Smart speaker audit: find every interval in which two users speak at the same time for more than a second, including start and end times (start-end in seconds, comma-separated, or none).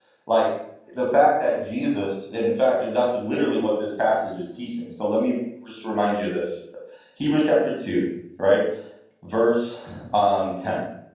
none